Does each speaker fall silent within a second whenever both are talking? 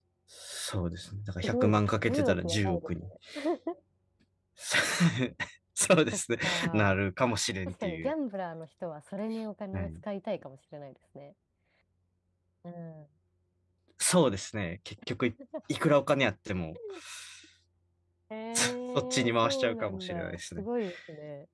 No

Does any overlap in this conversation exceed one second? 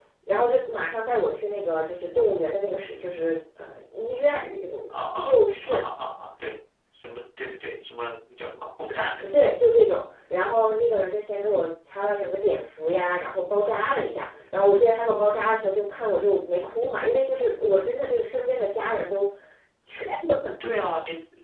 No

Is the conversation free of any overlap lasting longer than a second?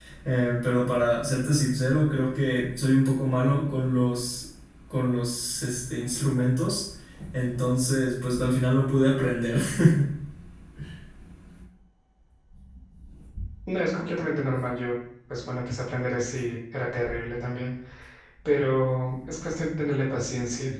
Yes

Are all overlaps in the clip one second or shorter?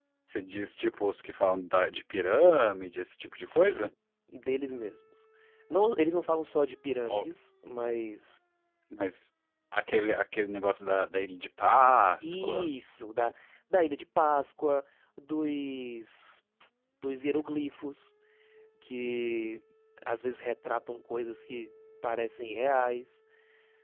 Yes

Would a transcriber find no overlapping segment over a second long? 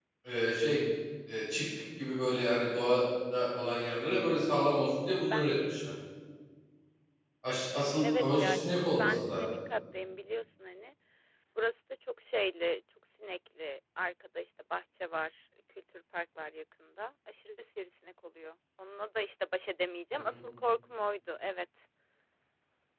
No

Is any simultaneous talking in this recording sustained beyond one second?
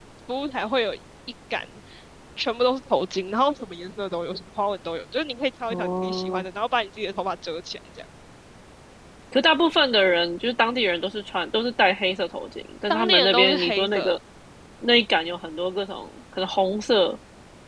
Yes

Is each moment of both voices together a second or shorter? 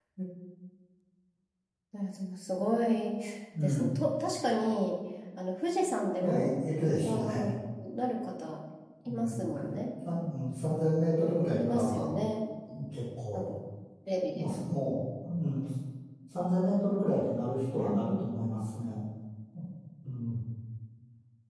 Yes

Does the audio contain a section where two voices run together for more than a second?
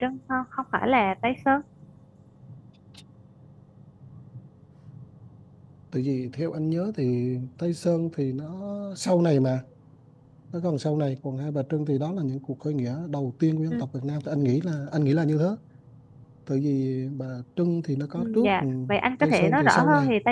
Yes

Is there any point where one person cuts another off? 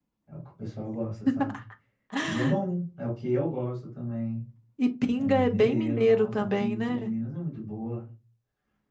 Yes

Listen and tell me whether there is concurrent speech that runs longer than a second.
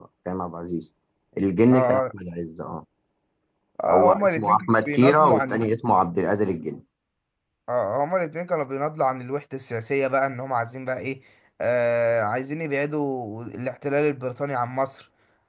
Yes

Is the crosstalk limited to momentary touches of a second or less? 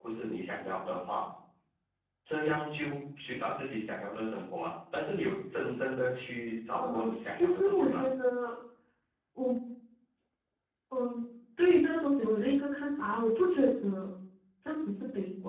No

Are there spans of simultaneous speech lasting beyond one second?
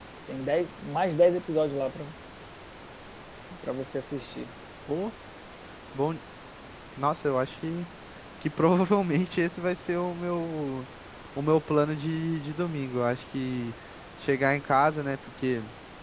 No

